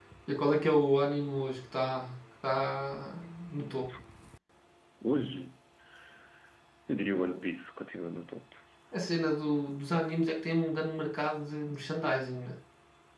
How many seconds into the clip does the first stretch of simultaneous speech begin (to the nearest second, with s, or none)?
none